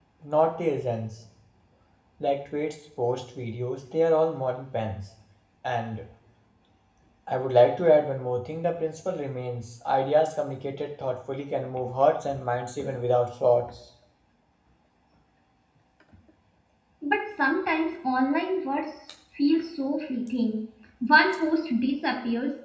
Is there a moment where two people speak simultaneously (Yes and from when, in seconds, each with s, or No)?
No